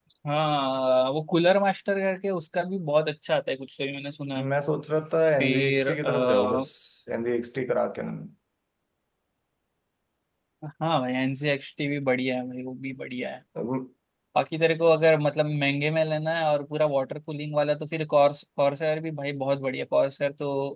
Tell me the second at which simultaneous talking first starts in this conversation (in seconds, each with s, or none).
5.4 s